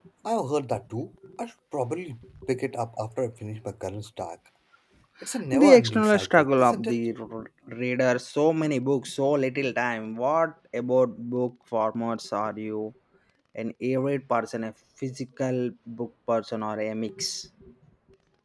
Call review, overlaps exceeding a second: present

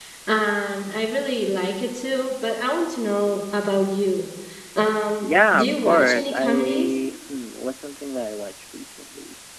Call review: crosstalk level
present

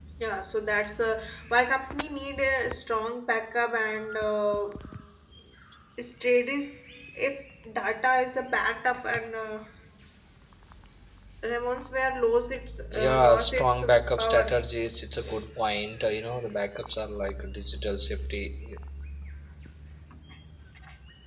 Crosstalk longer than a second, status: present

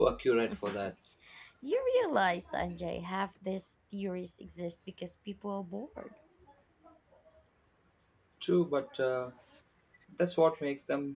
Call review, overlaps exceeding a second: none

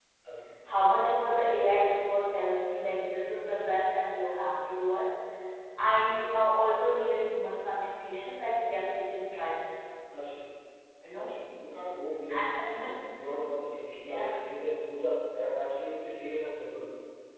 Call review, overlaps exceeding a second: none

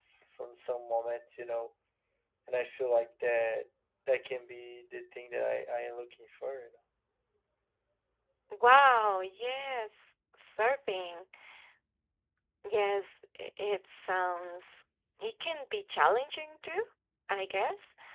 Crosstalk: none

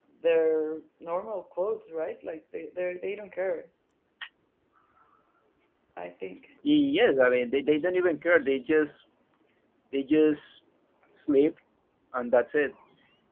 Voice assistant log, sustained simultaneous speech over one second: none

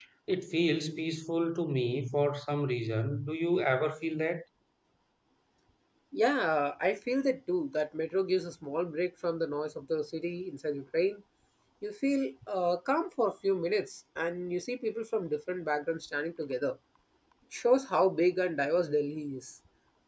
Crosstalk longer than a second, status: none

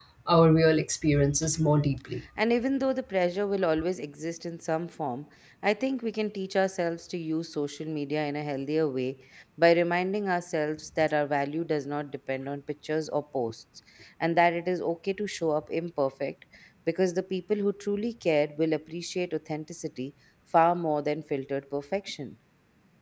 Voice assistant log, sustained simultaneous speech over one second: none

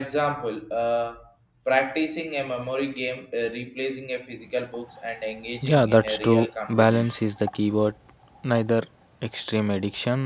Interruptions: present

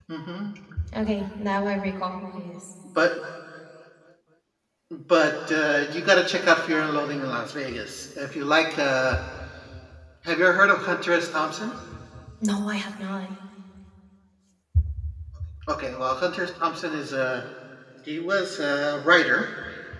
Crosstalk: none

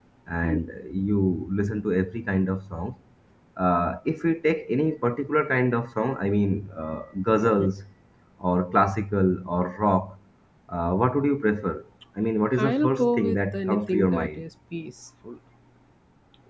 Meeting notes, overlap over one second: present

